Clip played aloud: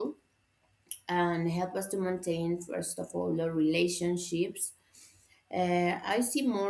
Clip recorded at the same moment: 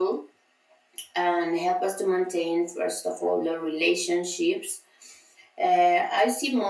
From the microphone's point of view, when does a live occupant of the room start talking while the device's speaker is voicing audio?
none

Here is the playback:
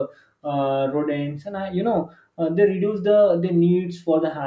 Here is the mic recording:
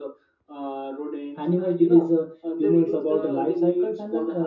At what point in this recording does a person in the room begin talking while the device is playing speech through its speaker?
1.4 s

